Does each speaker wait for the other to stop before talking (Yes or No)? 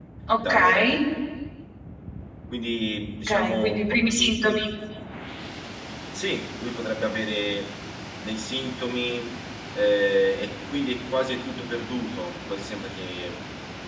No